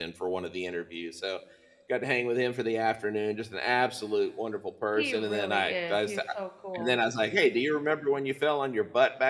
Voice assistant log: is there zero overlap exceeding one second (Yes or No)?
No